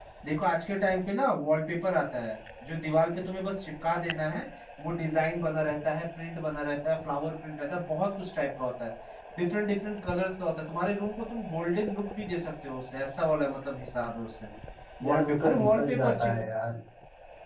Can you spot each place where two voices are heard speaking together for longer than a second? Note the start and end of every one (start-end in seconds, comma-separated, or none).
15.0-16.4